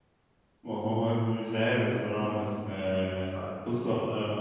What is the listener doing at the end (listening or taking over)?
listening